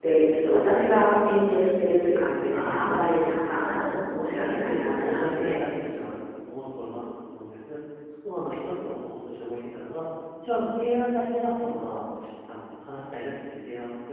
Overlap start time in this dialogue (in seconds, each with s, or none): 2.5 s